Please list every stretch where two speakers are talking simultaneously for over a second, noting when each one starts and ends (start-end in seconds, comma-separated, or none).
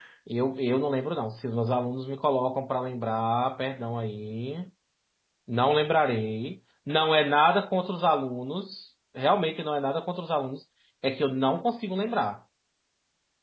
none